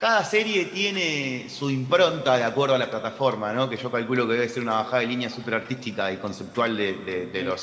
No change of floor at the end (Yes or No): No